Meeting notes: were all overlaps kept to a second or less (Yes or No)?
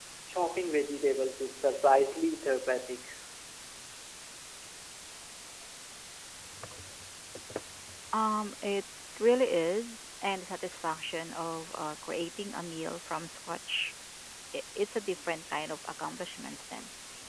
Yes